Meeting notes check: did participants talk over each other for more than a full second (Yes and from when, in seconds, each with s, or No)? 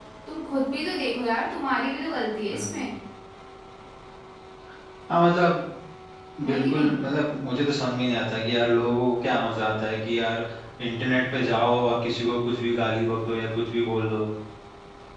No